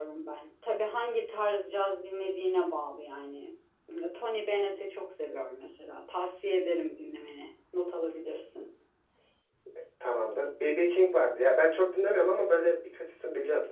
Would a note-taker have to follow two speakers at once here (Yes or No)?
No